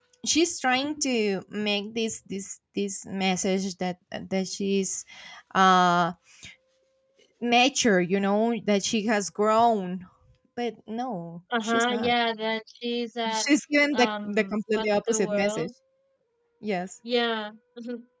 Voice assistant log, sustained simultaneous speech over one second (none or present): present